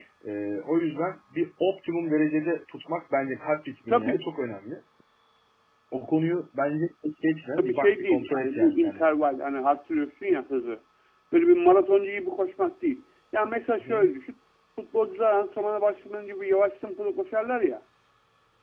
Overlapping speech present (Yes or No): Yes